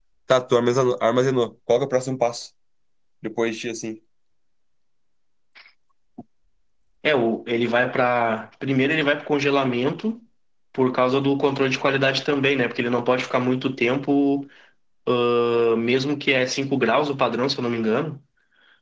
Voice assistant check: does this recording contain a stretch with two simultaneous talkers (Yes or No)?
No